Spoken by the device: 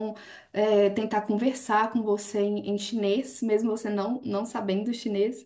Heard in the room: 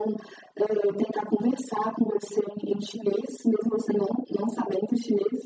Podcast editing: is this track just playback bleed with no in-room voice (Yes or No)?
Yes